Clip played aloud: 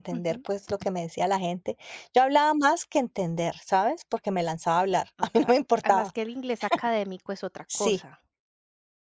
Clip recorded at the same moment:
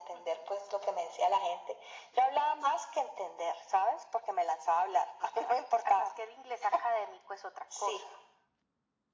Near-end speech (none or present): none